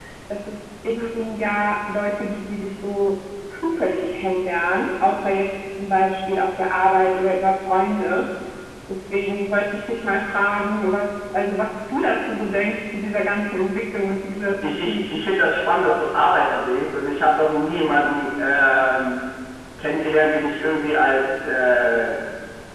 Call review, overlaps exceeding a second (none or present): none